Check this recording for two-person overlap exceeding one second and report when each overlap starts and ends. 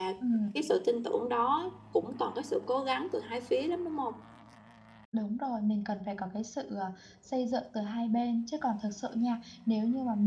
none

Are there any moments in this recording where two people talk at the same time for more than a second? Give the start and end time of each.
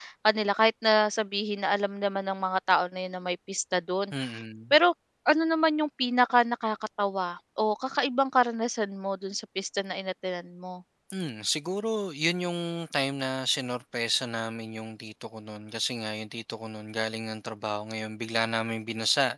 none

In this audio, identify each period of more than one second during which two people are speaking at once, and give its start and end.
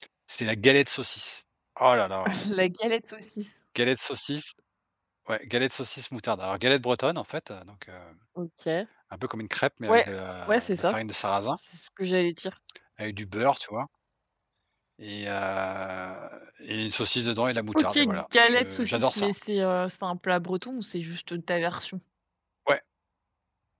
17.8-19.3

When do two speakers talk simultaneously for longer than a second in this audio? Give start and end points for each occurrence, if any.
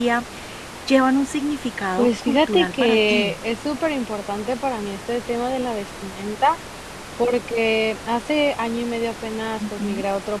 2.0-3.3

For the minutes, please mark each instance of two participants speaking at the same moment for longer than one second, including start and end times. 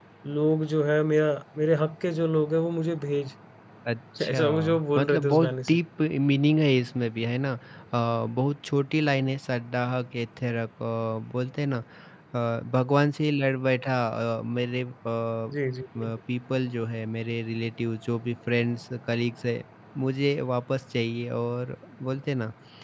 4.2-5.8

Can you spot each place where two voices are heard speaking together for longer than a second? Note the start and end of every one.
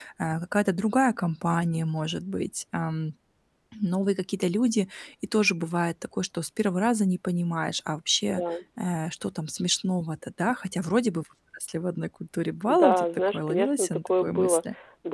12.7-14.6

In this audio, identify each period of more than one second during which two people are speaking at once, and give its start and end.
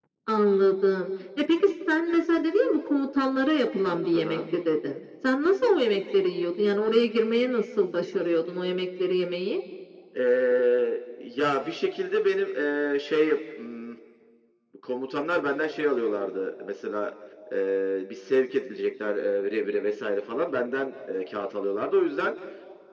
none

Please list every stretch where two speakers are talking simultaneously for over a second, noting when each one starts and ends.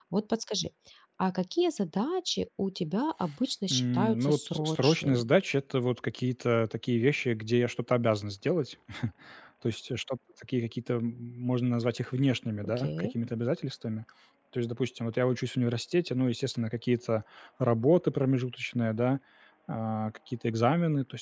3.7-5.2

